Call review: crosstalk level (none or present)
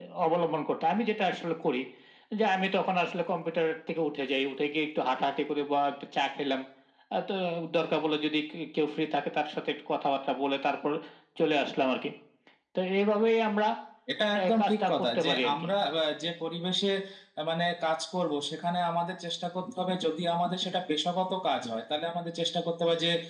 present